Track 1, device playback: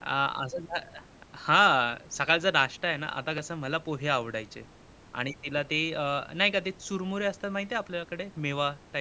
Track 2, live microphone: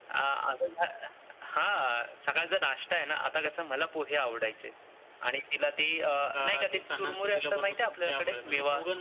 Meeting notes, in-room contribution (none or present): present